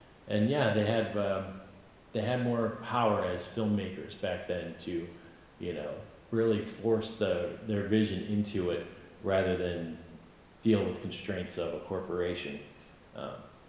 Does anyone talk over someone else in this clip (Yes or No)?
No